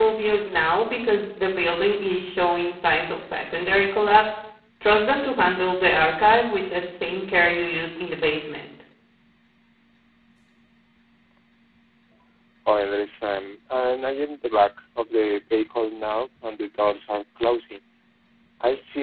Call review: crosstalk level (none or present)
none